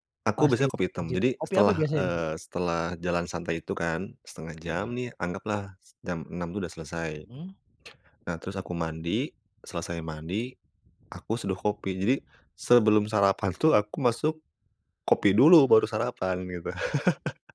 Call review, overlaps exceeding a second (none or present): present